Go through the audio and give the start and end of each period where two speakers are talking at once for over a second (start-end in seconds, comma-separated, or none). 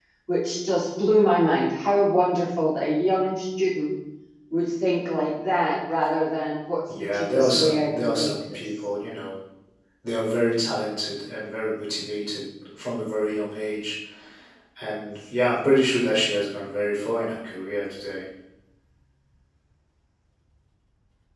7.1-8.6